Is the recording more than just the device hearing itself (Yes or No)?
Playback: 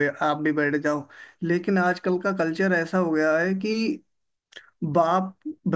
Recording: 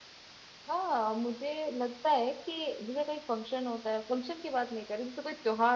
Yes